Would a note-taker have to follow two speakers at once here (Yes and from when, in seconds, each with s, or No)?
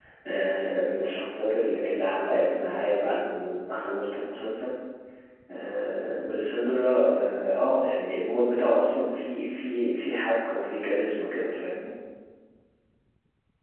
No